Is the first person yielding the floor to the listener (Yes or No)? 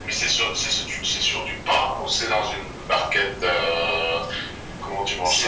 Yes